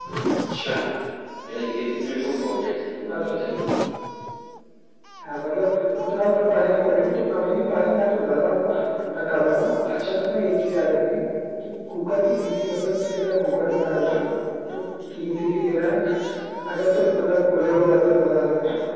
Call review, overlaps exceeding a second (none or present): none